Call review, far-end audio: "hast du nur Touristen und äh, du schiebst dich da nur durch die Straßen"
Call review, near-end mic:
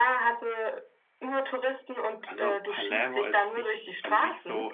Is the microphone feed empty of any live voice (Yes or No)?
No